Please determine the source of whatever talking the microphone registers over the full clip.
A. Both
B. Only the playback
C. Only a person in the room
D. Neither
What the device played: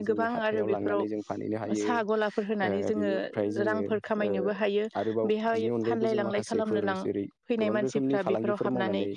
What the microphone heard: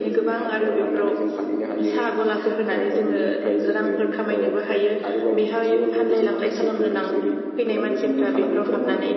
B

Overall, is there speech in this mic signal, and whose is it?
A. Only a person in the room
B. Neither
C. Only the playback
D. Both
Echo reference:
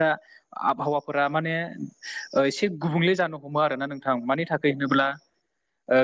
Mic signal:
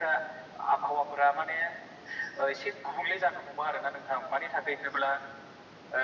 C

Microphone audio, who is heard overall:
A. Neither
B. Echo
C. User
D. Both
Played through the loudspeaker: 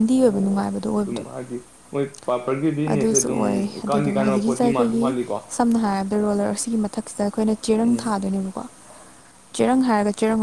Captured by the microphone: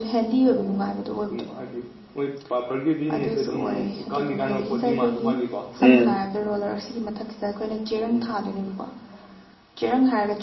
D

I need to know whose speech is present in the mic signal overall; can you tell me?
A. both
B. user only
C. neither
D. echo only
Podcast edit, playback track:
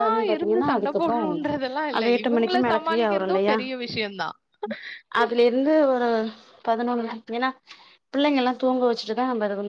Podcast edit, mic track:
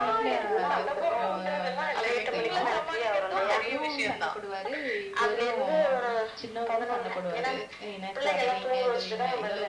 A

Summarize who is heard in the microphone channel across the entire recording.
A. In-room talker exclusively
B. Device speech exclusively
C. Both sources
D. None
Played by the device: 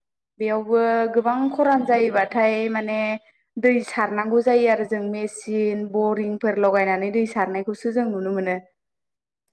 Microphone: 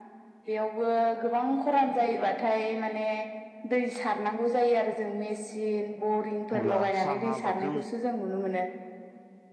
C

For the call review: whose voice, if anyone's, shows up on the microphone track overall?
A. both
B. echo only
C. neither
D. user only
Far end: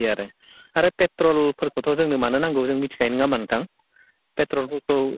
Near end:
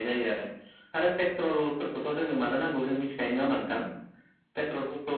B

